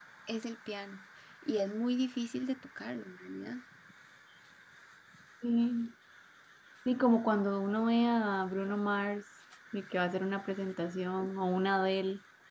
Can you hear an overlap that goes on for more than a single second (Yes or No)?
No